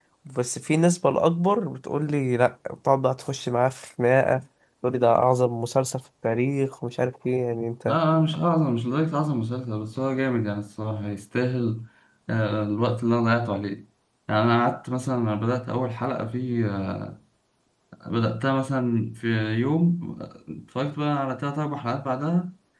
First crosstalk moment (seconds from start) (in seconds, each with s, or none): none